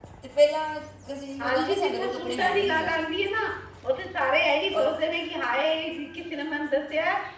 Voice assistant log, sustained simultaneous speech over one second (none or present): present